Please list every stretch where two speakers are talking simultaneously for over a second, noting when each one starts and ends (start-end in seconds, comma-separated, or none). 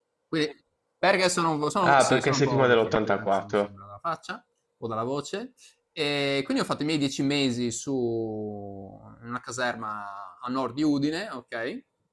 1.8-3.5